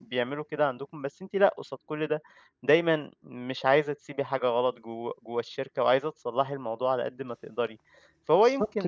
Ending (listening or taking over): listening